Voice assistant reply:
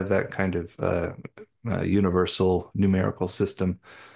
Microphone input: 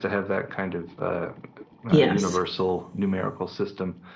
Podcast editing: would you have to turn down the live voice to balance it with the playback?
Yes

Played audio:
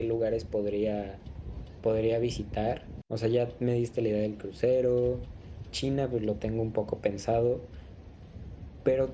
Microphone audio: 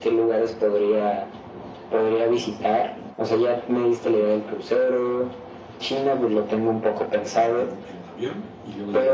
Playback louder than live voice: Yes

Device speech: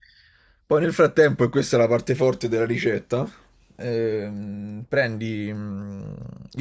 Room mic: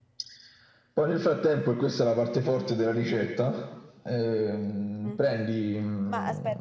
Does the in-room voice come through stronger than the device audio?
No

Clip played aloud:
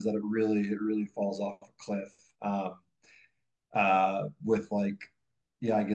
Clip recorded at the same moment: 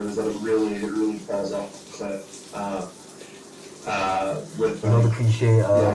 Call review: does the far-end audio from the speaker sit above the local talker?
No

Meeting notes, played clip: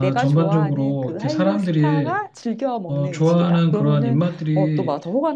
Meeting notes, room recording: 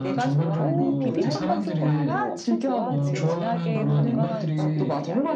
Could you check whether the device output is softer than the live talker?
No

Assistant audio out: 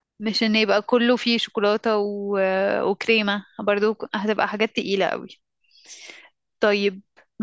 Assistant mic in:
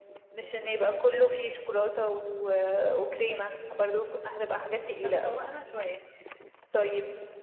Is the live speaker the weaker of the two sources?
Yes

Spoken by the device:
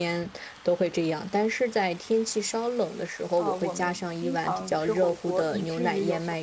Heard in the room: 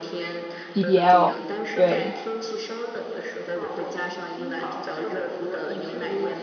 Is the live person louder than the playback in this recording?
Yes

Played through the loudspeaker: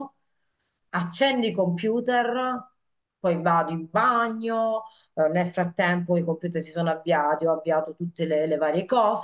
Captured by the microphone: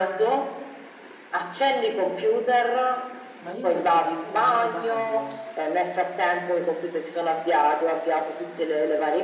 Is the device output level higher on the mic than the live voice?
Yes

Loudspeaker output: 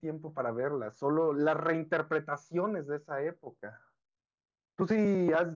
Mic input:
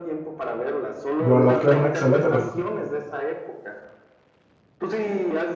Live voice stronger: Yes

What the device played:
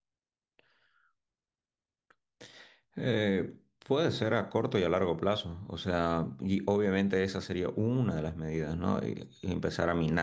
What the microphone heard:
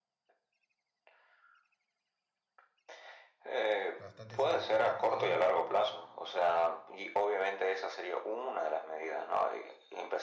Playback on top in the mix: Yes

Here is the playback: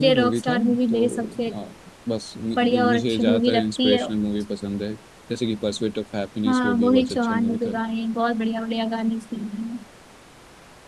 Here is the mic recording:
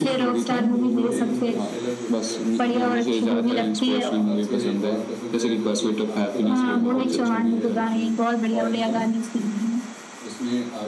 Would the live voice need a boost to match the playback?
Yes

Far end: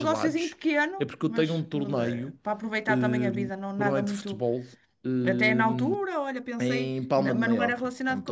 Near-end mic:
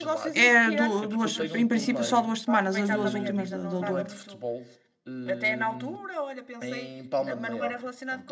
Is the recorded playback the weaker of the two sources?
Yes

